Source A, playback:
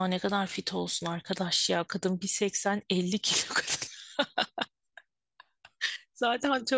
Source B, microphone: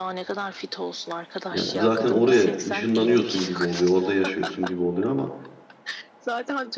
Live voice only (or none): Yani zaten oraya ışınlanıyorsun gibi oluyor, orada yaşıyorsun gibi oluyor ama